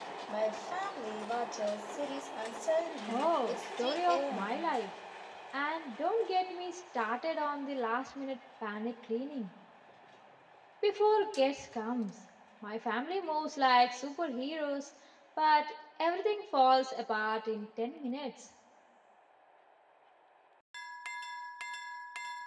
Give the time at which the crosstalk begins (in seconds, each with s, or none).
3.0 s